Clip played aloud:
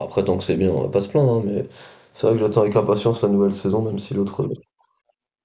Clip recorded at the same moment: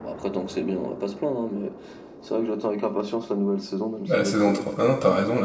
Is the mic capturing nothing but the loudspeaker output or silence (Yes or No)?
No